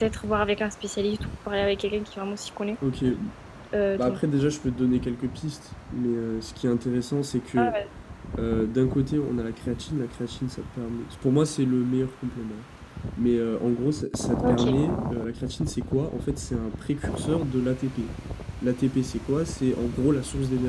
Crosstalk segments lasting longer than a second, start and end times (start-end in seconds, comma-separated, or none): none